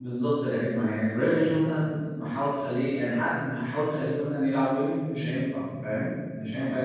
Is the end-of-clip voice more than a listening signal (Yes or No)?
Yes